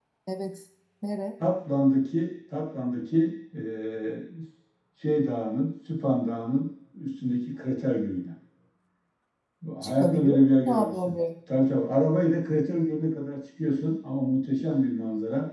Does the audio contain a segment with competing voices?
Yes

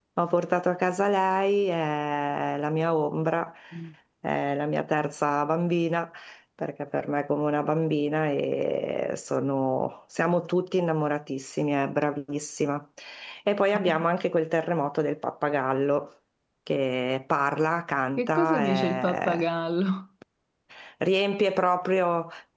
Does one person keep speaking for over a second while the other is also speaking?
Yes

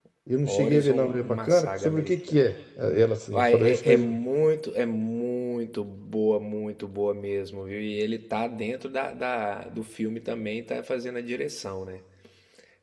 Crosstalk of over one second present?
Yes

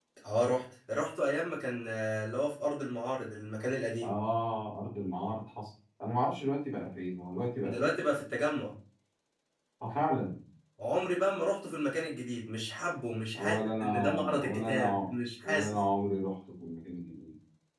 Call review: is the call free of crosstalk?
No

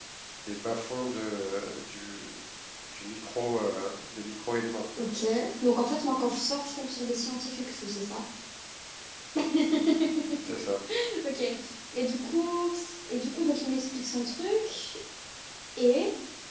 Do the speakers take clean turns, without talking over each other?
Yes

